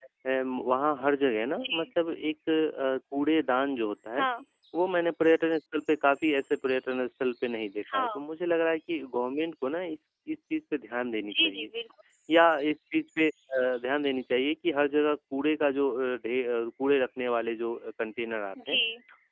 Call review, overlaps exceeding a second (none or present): none